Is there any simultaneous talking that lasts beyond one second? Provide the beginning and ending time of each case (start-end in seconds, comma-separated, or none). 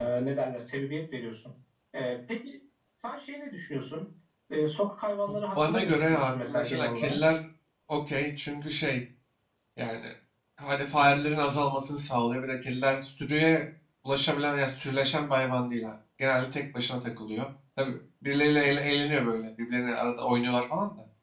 5.6-7.2